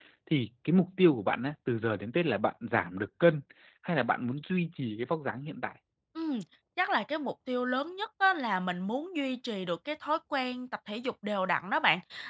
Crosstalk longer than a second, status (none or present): none